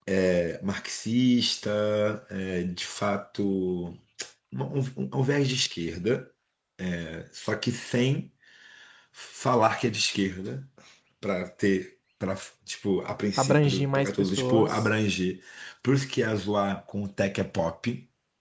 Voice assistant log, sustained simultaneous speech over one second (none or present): present